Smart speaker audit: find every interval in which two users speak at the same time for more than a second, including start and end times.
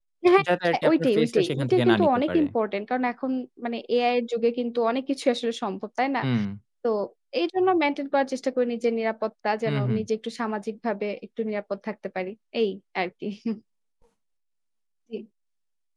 0.7-2.5

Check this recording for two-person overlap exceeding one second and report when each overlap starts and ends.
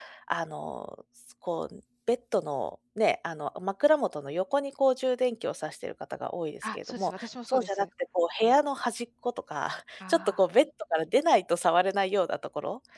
6.6-7.8

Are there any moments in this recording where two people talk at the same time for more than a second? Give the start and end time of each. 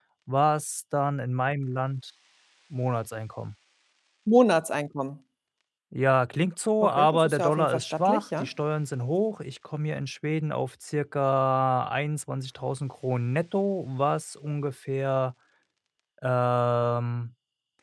6.8-8.5

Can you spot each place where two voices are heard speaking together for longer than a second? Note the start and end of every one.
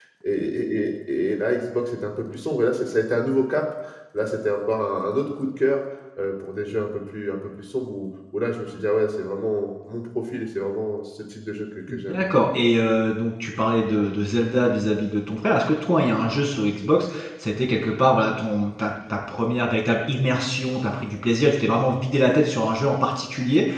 none

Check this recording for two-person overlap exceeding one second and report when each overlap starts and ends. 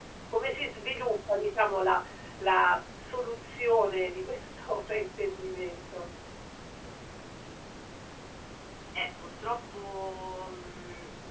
none

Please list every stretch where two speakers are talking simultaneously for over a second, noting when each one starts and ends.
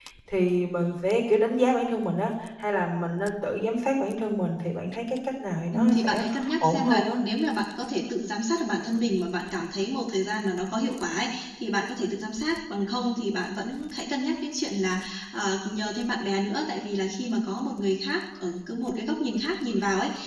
5.7-7.1

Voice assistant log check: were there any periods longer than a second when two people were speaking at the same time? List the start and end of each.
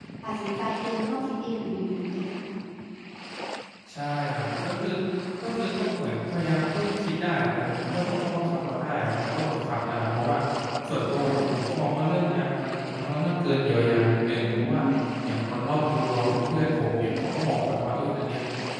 none

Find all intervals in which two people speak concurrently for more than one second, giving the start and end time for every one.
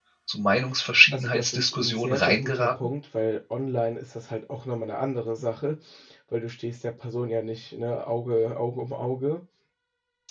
1.1-2.9

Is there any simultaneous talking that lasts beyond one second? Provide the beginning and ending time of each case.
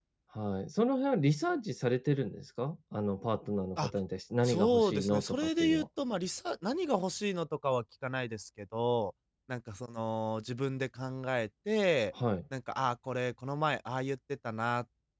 4.4-5.8

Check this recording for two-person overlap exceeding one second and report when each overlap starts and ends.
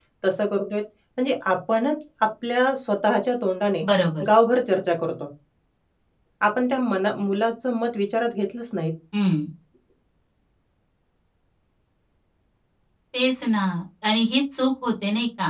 none

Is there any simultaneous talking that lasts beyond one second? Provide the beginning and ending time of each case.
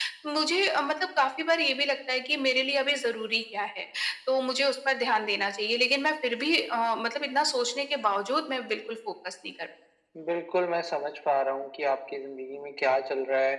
none

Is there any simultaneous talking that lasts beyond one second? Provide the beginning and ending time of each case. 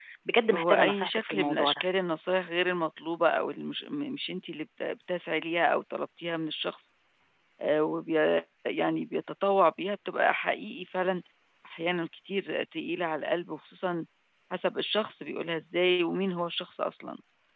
0.5-1.8

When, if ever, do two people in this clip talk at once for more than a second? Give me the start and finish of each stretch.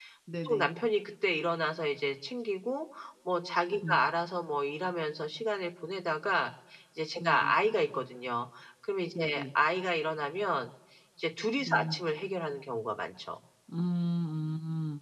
none

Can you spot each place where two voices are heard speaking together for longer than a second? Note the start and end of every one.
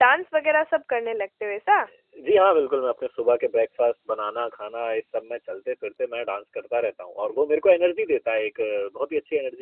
none

